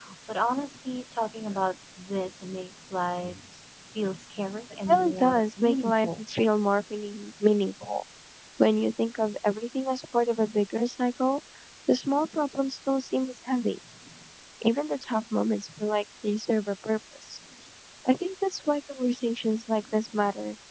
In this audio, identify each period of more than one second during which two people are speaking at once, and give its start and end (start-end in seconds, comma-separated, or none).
4.9-6.2